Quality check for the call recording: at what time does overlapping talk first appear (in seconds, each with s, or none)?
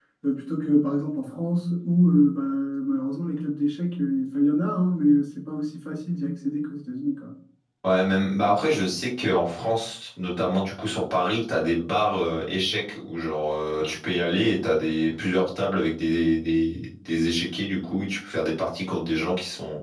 none